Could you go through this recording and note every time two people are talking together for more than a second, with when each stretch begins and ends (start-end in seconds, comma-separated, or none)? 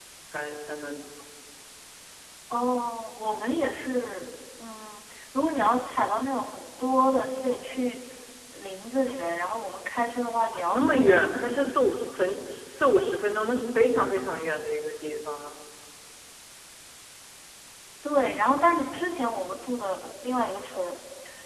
10.5-11.8